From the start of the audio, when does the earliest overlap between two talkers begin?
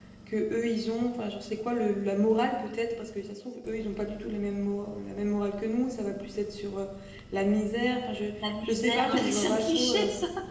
8.4 s

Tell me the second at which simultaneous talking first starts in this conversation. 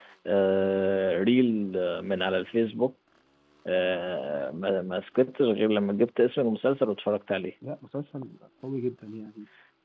none

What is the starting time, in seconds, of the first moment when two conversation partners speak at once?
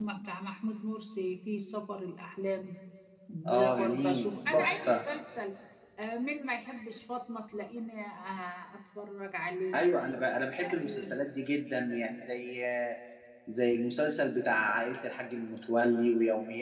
3.5 s

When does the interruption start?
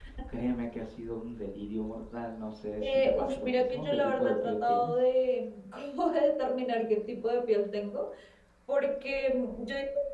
2.8 s

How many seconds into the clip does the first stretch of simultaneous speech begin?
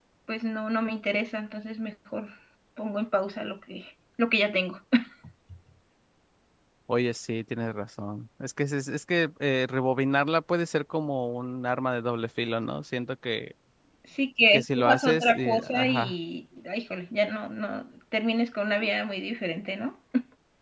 14.5 s

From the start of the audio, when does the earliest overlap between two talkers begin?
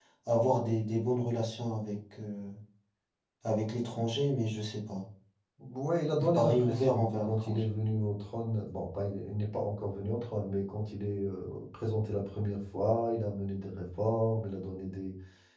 6.3 s

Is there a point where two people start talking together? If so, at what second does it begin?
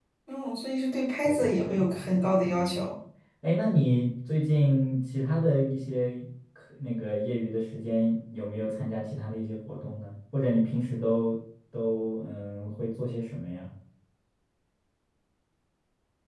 1.2 s

